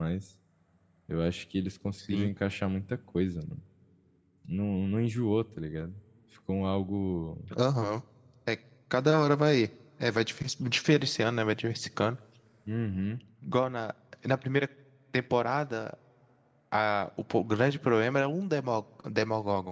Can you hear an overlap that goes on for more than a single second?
No

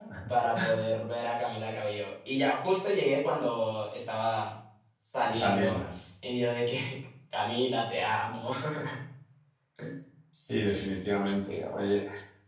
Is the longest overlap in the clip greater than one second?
No

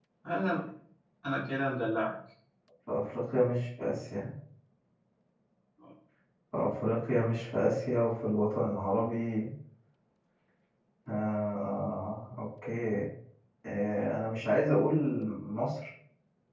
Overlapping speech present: No

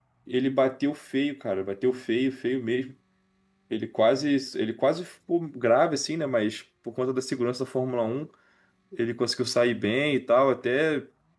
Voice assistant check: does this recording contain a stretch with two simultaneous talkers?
No

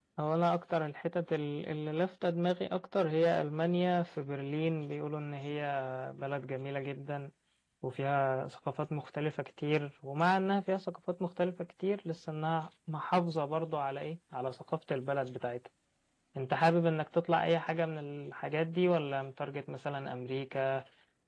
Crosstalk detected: No

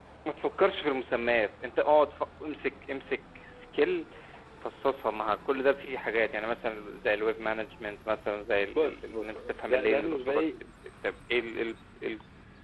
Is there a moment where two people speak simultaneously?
Yes, from 8.7 s

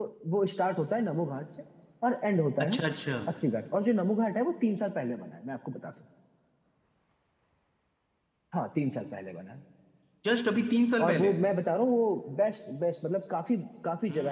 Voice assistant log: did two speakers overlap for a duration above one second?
No

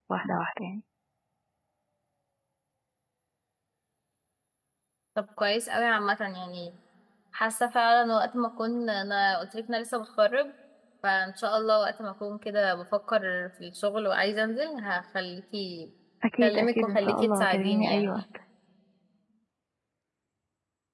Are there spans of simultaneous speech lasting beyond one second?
Yes, from 16.4 s

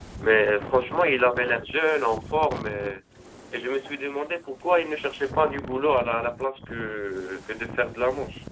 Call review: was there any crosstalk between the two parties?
No

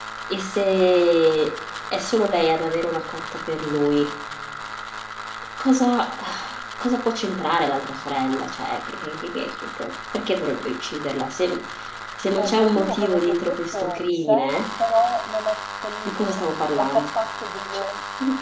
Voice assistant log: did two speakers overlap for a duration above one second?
Yes, from 12.4 s

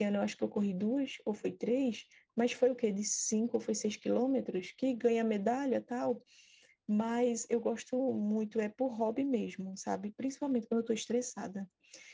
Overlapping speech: No

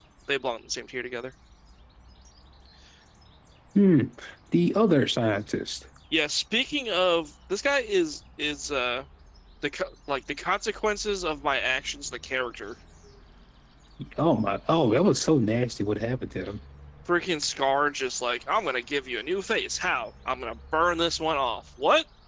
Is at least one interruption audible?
No

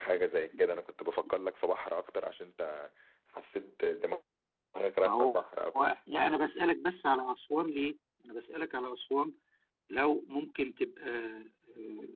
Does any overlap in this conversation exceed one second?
No

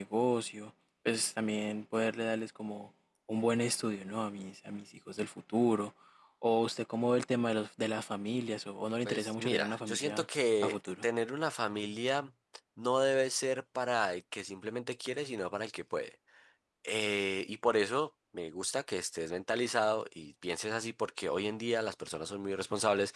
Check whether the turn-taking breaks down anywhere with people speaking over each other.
Yes, from 9.1 s

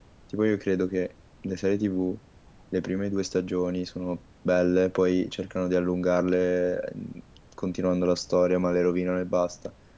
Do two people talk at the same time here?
No

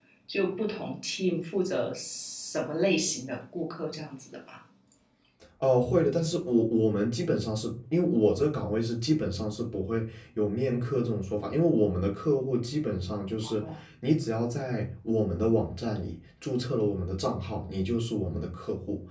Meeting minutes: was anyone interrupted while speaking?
No

